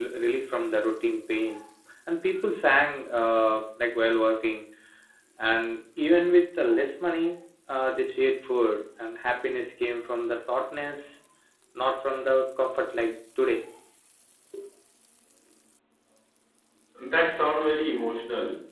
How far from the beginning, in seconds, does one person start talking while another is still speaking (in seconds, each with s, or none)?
none